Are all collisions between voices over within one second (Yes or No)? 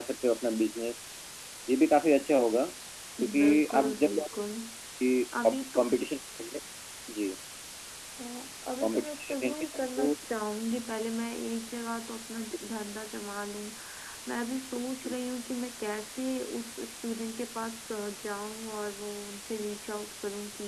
No